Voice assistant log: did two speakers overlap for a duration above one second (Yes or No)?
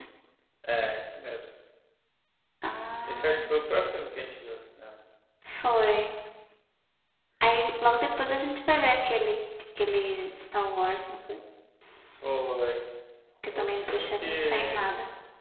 Yes